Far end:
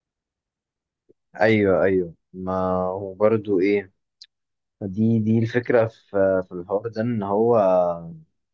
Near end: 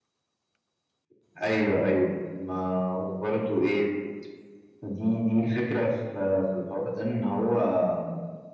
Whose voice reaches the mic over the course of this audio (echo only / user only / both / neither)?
echo only